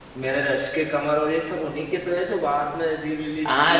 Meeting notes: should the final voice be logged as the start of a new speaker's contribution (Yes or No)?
Yes